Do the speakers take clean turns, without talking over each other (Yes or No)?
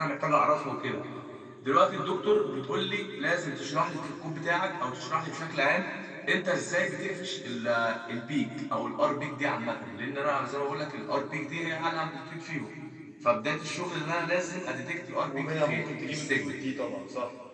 No